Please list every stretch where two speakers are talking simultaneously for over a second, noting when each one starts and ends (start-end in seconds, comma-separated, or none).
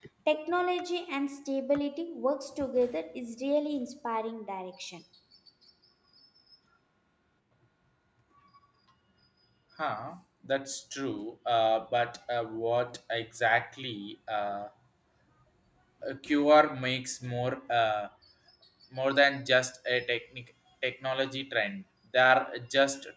none